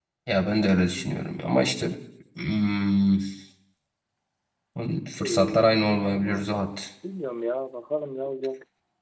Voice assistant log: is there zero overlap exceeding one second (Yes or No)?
No